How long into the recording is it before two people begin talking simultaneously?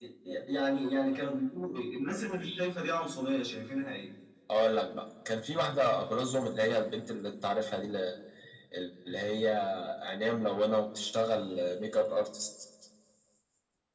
none

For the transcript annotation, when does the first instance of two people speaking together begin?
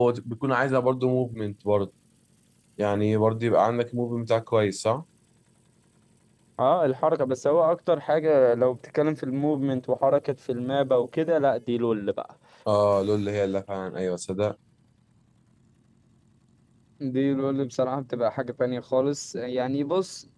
none

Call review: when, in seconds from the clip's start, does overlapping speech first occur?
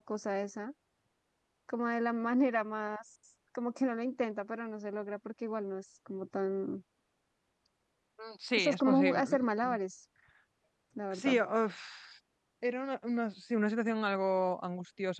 8.6 s

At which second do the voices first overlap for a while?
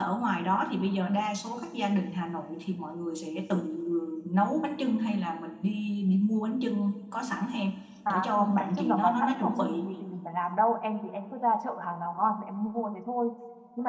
8.1 s

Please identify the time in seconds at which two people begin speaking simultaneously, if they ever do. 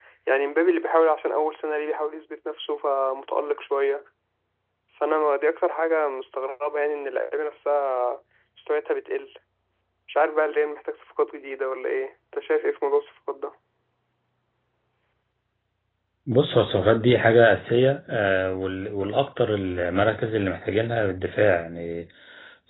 none

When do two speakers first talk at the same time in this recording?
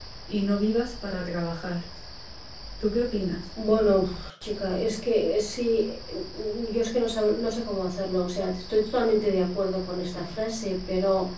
none

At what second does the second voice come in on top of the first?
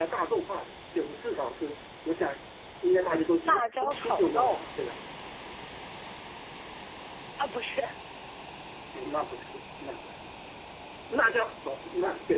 3.4 s

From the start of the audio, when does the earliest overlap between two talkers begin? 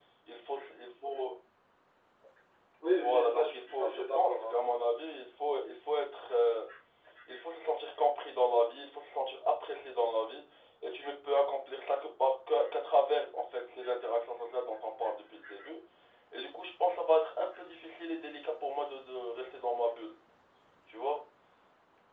2.9 s

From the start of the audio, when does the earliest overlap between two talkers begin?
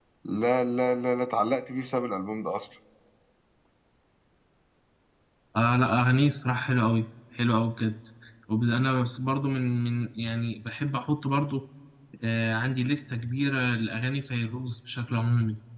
none

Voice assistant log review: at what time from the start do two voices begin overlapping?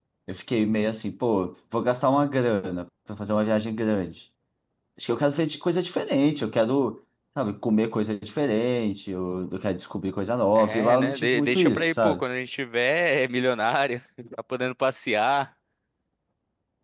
10.6 s

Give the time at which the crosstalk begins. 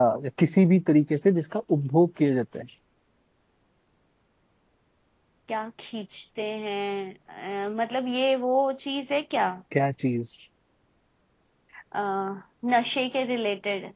none

